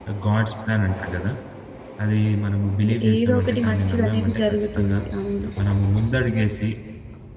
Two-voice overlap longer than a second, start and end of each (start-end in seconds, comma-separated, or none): 2.9-5.0